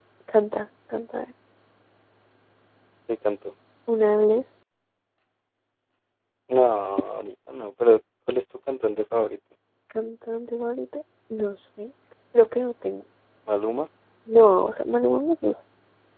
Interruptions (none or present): none